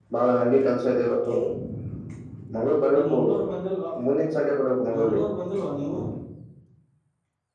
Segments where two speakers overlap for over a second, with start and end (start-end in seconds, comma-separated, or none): none